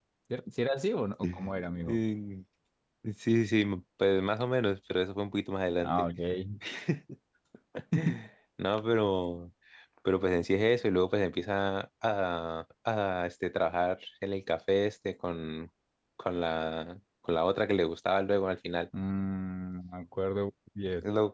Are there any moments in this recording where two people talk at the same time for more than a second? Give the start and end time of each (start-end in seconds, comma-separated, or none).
none